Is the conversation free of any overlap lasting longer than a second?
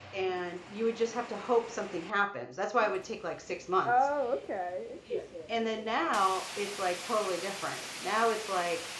Yes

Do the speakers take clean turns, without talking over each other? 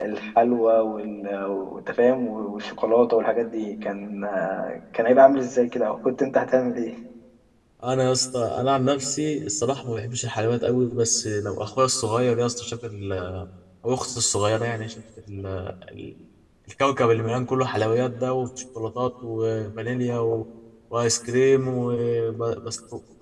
Yes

